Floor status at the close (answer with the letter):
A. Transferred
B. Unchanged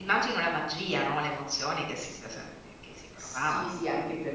A